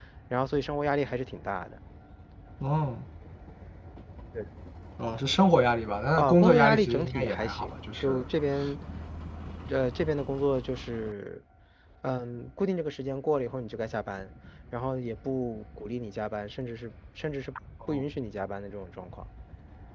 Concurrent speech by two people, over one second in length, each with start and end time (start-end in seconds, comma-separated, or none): 6.2-8.2